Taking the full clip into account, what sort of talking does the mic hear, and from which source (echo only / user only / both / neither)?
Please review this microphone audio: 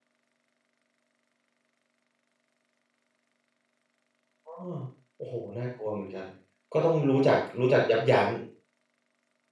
user only